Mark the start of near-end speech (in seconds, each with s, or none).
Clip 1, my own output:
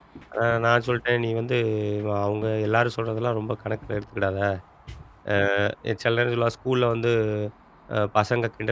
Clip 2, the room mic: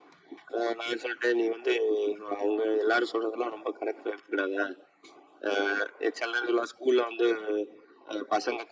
none